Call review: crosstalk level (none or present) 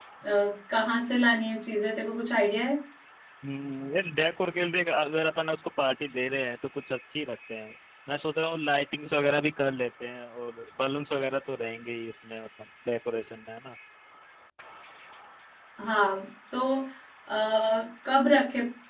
none